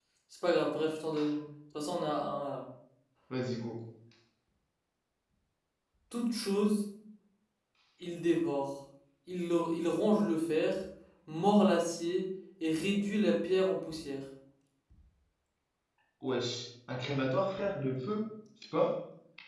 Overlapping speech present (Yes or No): No